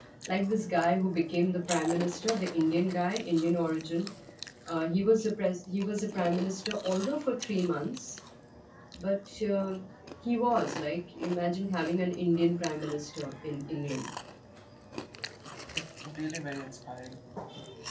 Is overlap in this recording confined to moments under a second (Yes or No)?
Yes